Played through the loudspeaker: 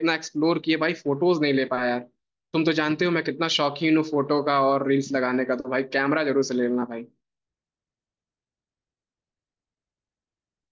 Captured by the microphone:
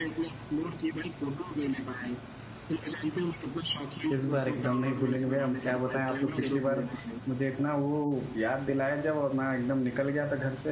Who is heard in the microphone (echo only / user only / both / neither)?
both